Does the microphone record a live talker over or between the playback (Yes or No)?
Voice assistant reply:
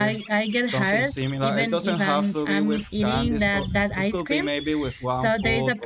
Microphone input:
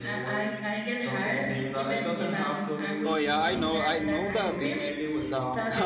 Yes